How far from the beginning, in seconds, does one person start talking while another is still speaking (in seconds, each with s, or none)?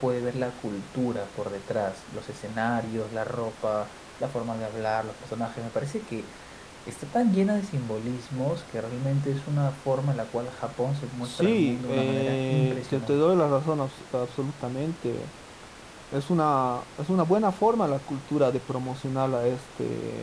11.2 s